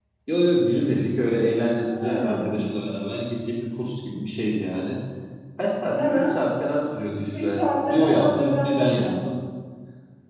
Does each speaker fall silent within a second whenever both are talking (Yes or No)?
No